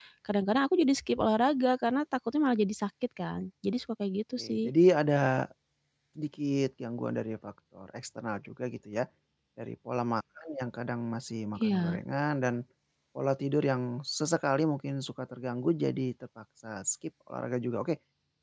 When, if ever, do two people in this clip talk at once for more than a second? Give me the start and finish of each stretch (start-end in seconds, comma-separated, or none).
none